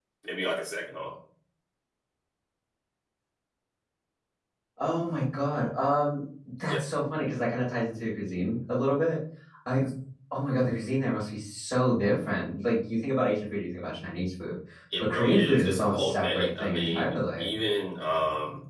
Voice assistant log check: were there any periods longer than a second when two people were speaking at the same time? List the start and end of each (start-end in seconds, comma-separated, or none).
15.0-17.5